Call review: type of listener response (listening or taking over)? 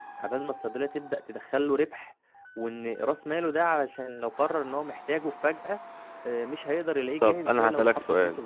taking over